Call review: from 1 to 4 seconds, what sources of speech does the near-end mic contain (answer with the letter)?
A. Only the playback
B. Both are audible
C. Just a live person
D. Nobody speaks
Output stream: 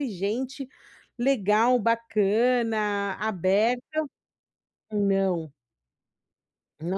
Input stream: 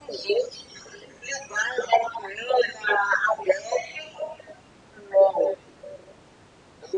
A